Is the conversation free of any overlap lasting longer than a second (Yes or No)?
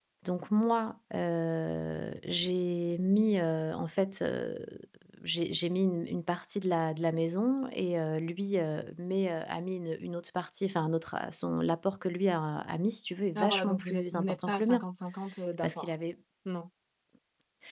No